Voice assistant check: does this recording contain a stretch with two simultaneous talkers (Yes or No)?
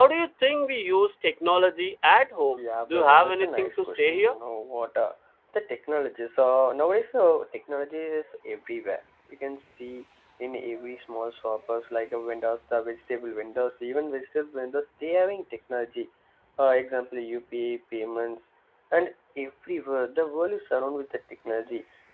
Yes